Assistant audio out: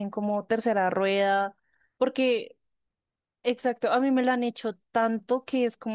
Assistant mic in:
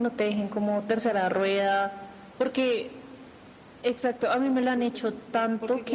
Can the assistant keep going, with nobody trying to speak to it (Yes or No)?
No